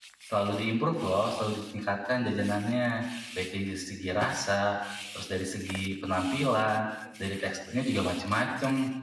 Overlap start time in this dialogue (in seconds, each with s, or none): none